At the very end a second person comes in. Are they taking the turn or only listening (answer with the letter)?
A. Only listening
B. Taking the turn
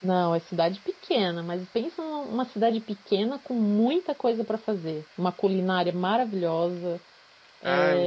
A